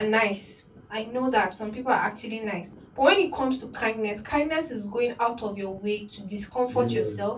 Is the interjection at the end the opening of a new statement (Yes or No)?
No